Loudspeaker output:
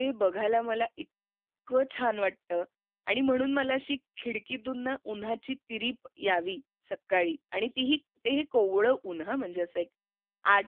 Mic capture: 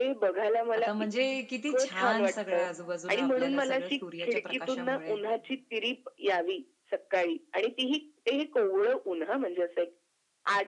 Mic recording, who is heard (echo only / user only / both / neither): both